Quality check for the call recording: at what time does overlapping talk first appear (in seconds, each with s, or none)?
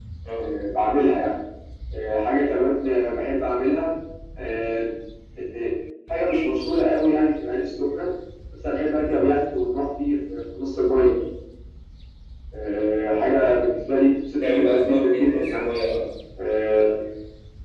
14.4 s